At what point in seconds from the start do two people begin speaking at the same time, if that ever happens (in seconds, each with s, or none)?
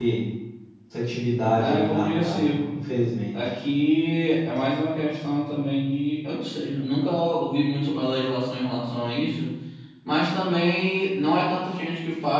1.6 s